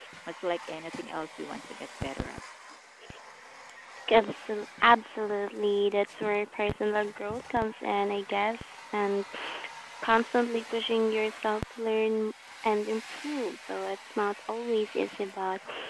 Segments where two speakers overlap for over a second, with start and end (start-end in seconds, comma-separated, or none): none